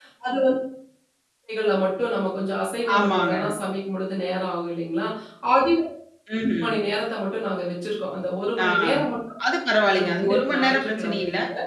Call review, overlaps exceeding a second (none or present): present